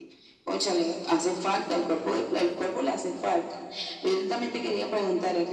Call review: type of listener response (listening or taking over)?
listening